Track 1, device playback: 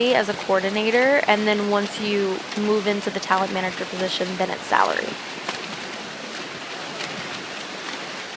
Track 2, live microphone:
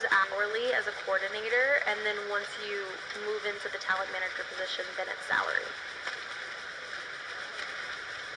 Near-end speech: none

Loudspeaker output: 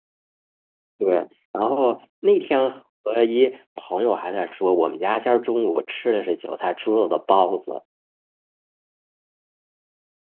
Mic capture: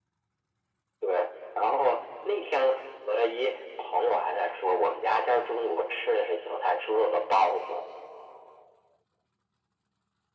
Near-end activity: none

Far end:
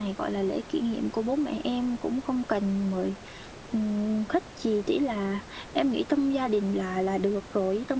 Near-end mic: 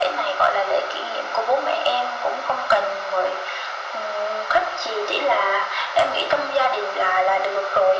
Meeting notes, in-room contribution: none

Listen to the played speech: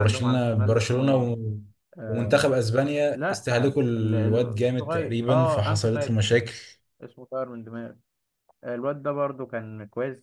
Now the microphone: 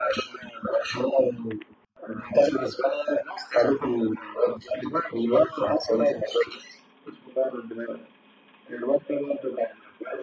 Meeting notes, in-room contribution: none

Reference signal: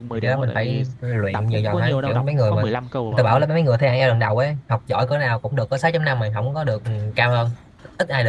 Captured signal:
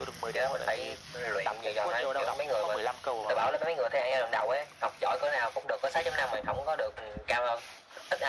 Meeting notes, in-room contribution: none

